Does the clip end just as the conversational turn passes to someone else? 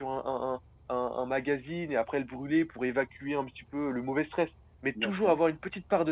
No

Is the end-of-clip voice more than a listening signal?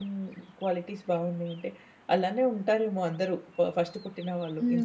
Yes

